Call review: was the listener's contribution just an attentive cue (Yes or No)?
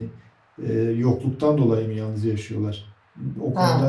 No